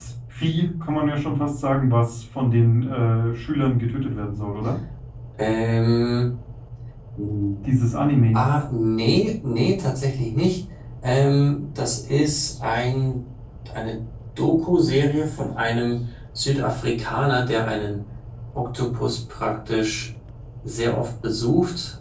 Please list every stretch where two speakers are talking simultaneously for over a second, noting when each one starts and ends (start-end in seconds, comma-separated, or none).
none